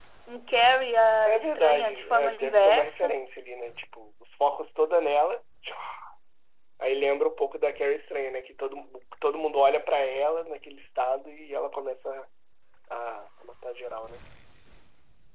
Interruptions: present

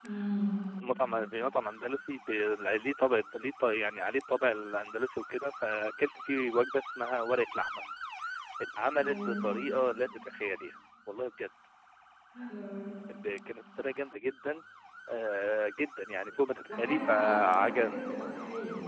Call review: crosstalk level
present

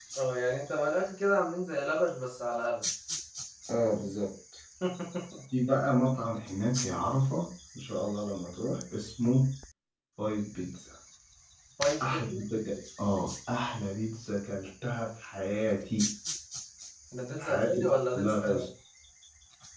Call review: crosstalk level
present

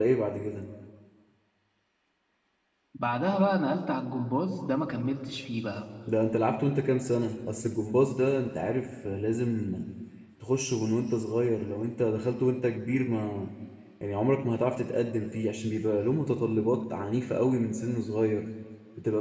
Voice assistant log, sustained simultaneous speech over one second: none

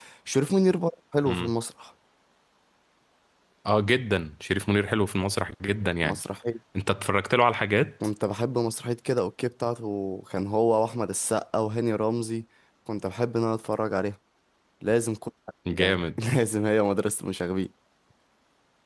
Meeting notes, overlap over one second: none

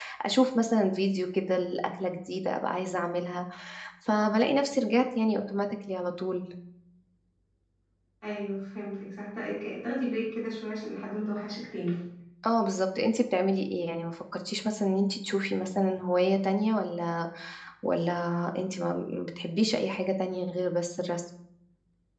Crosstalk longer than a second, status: none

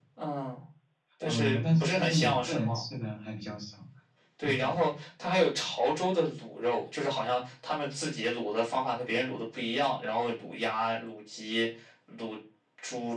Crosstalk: present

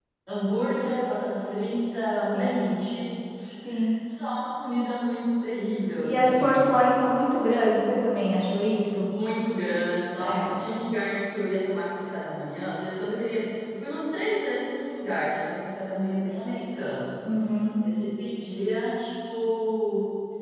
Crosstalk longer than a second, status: none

